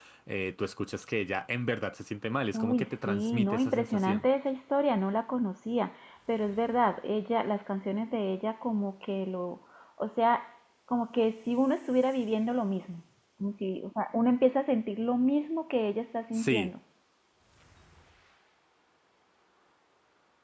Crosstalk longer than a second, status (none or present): present